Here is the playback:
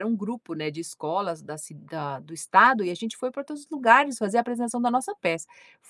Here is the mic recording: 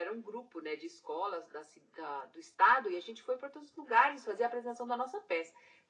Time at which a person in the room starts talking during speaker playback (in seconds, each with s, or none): none